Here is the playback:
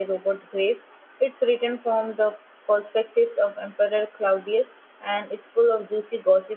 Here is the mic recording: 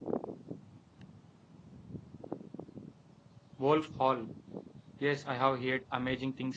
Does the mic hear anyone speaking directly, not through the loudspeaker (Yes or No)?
Yes